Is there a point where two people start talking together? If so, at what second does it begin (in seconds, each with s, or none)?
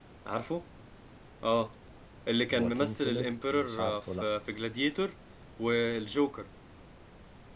2.5 s